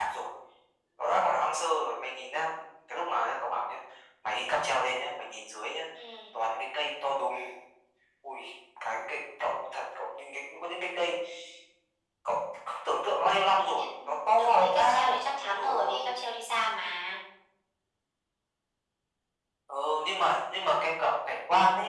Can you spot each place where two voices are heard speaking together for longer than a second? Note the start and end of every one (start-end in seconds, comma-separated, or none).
13.8-16.0